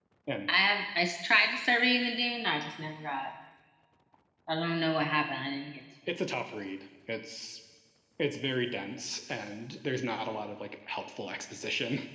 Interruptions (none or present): none